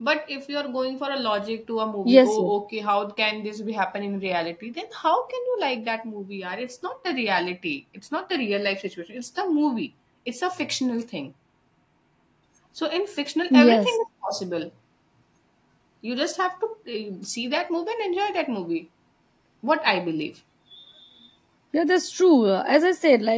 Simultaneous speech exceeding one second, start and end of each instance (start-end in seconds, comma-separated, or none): none